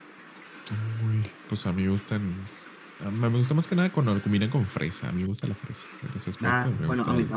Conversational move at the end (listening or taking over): taking over